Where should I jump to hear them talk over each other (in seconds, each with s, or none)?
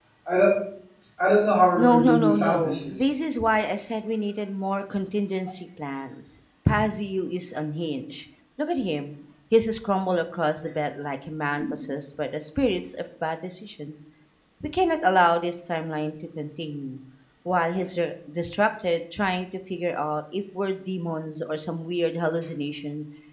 1.8 s